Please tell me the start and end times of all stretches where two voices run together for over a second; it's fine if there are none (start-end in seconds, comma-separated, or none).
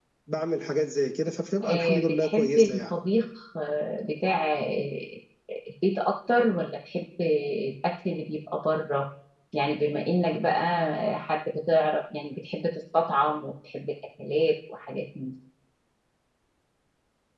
1.6-2.9